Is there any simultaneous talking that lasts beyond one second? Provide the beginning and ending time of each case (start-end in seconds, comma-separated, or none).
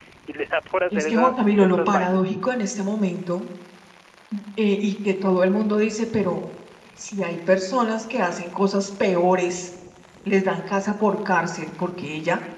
0.9-2.2